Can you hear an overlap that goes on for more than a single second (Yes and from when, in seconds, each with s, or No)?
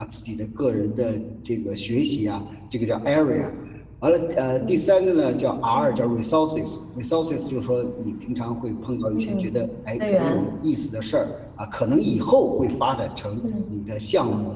No